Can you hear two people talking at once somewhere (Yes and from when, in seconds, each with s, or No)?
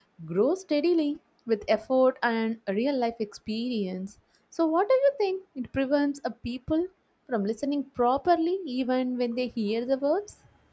No